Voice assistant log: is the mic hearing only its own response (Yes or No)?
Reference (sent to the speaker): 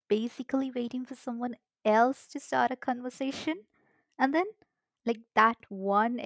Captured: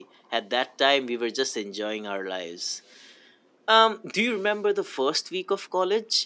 No